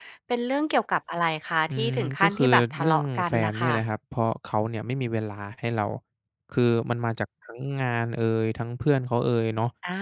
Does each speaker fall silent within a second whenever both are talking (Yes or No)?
No